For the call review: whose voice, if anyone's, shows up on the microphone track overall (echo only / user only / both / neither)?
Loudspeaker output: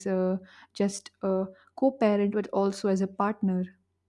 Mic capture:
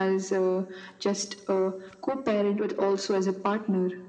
echo only